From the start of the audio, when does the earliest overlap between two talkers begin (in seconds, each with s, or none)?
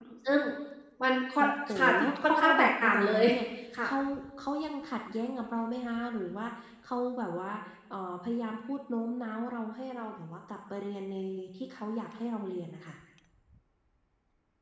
1.4 s